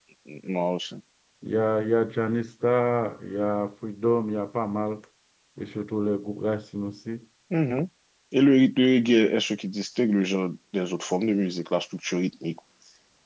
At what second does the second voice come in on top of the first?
none

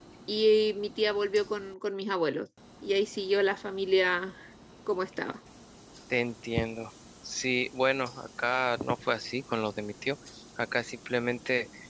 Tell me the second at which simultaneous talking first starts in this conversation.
none

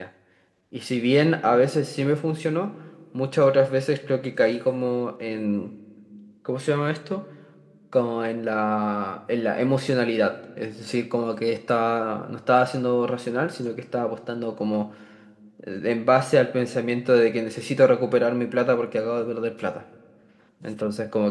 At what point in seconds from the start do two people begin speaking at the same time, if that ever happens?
none

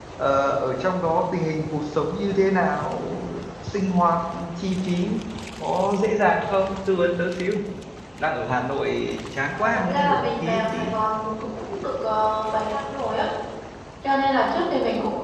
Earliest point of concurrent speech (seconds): 9.5 s

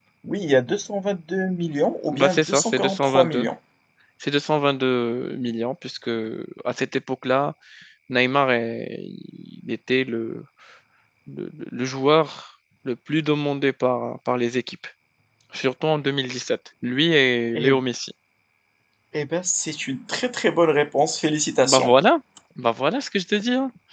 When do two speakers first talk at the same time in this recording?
2.1 s

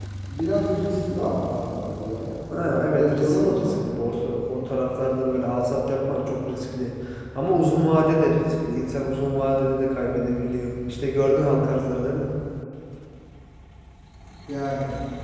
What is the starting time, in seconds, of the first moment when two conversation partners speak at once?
2.5 s

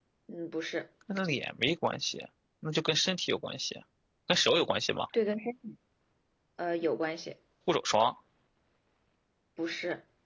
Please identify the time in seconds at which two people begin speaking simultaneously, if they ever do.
none

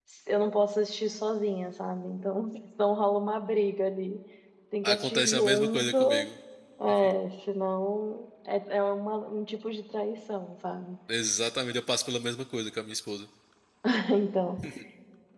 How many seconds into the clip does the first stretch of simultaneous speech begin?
4.8 s

